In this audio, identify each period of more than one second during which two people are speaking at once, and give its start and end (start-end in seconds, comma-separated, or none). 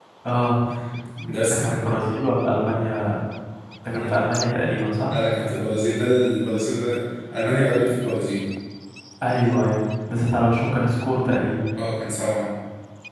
none